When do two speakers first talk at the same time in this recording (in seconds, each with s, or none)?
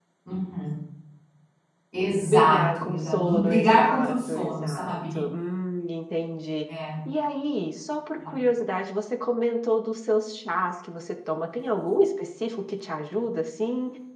2.3 s